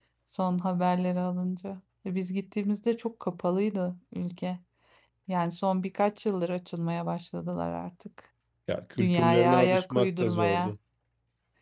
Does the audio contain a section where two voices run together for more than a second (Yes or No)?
Yes